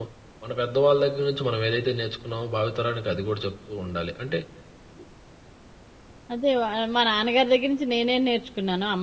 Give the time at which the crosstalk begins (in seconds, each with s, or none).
none